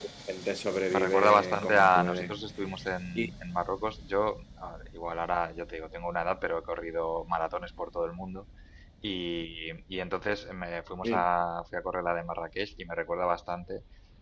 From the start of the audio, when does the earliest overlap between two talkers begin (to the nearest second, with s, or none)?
1 s